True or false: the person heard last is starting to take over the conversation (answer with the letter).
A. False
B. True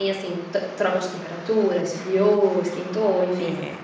B